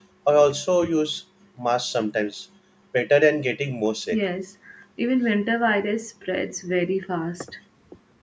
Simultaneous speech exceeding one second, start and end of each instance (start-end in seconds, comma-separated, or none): none